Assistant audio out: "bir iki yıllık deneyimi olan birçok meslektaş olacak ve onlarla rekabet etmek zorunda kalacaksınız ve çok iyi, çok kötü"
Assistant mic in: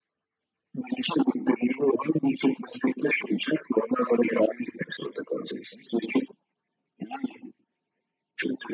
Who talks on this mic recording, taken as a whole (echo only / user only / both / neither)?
echo only